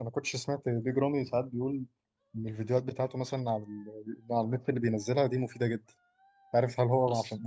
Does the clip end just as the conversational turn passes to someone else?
No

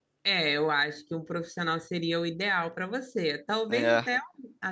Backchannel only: Yes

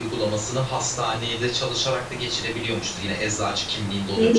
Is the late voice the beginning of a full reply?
No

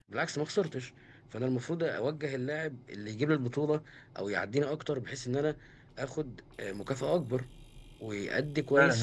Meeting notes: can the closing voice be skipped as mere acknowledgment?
No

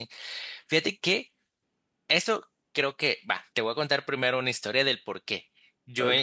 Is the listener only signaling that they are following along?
Yes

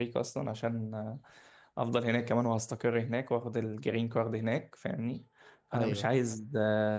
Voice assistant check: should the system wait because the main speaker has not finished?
Yes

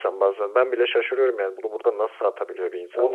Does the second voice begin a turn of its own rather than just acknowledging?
Yes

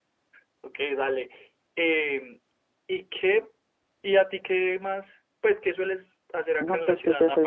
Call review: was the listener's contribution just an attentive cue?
No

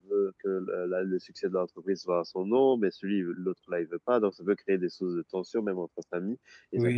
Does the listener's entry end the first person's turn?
No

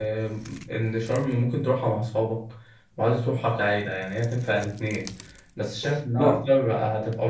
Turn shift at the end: No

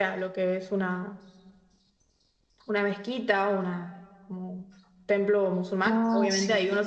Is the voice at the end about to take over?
No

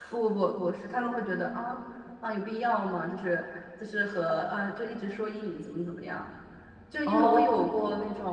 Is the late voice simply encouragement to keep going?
Yes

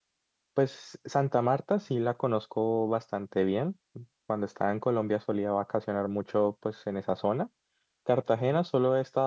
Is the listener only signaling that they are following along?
Yes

